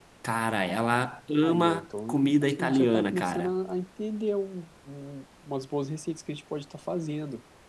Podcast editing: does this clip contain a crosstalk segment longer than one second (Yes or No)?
Yes